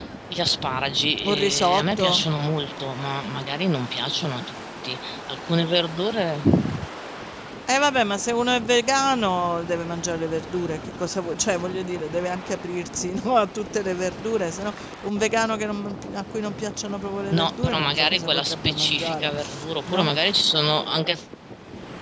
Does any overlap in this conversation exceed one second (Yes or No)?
Yes